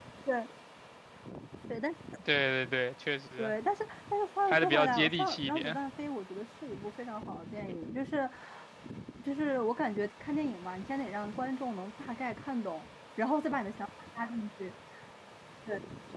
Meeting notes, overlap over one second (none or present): present